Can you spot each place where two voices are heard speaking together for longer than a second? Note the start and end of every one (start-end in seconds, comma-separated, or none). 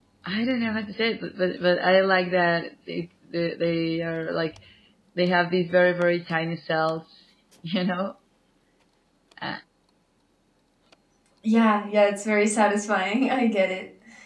none